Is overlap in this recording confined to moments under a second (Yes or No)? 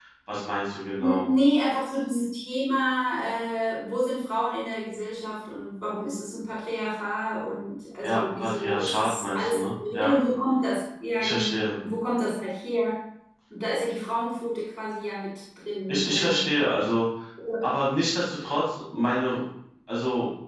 No